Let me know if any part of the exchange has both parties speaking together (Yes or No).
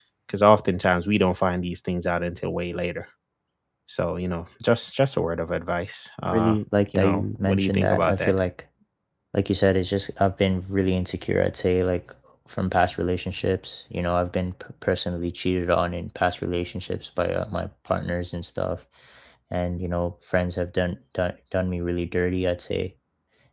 Yes